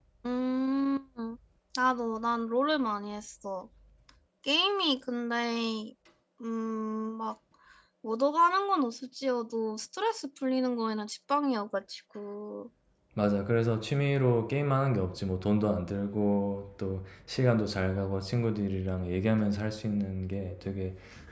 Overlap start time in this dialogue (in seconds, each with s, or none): none